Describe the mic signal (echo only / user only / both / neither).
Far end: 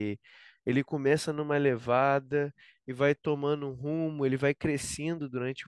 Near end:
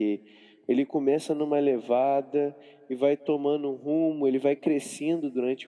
echo only